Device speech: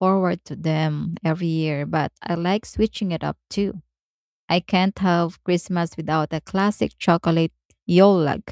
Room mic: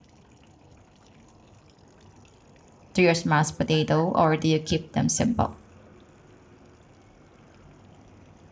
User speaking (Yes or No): Yes